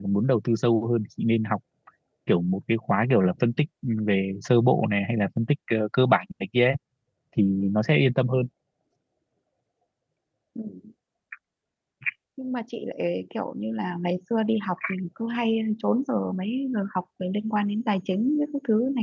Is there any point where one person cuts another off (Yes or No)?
No